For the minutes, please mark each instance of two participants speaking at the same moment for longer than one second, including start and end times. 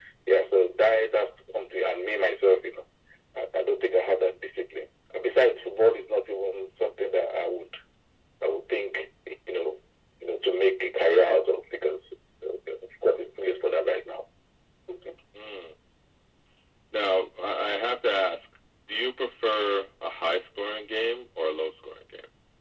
none

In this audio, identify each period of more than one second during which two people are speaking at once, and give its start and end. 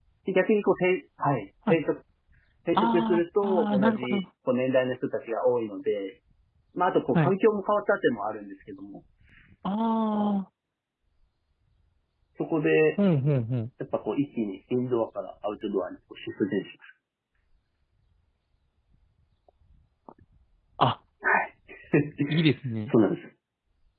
2.8-4.2

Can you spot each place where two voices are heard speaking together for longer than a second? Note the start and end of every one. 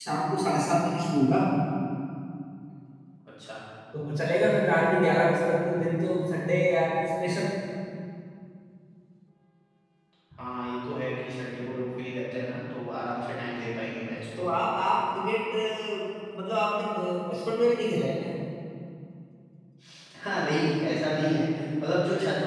none

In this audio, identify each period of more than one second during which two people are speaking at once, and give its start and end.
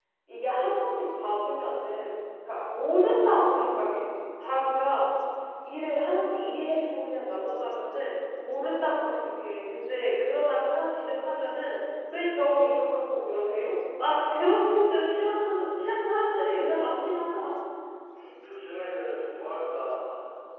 none

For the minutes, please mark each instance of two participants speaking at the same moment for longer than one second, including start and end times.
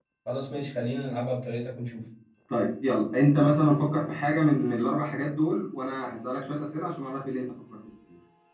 none

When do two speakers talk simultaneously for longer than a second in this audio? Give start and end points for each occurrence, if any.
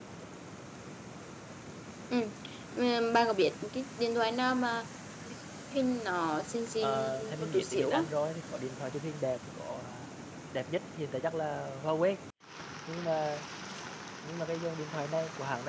6.8-8.0

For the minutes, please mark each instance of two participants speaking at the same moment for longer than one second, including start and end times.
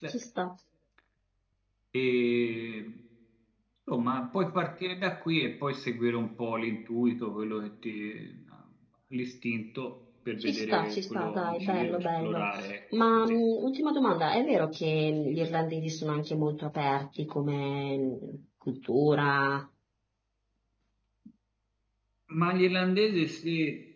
10.4-12.5

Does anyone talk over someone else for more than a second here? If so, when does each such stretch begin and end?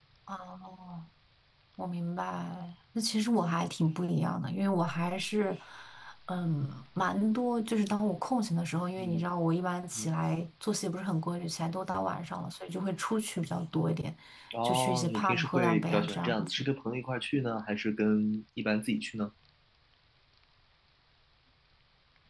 14.6-16.6

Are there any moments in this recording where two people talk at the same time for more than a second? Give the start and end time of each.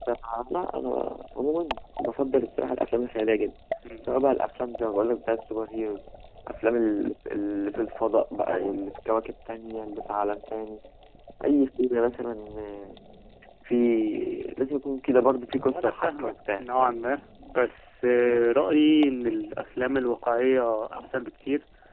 15.6-16.9

